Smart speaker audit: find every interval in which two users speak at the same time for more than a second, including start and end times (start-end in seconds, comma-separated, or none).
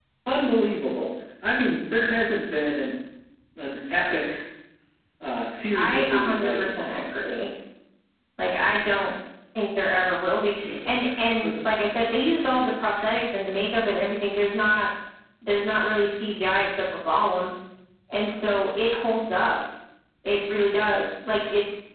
5.7-7.0